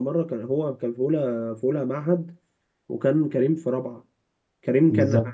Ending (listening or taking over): listening